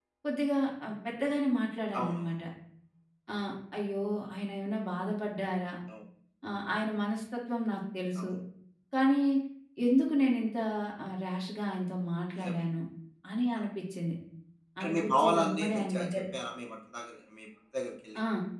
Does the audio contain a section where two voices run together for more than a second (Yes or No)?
Yes